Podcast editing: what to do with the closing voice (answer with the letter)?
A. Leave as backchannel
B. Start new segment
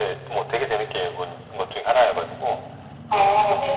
B